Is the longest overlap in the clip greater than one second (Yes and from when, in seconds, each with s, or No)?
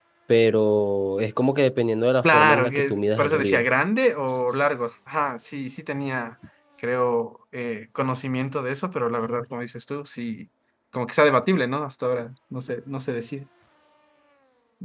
Yes, from 2.2 s